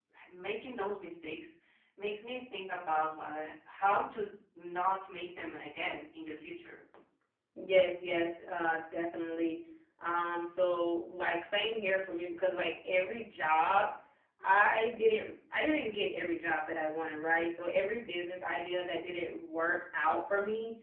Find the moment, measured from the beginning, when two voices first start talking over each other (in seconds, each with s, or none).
none